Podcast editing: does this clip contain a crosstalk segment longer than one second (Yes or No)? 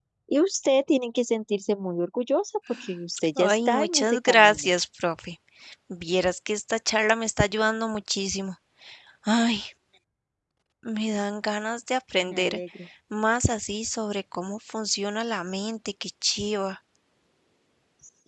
Yes